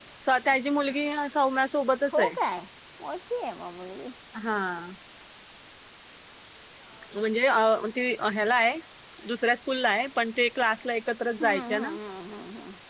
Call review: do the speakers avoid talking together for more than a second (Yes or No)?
Yes